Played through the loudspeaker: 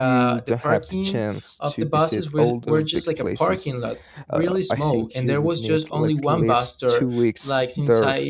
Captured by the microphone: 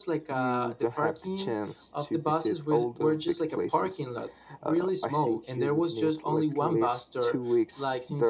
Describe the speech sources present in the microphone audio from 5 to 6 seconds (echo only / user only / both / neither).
echo only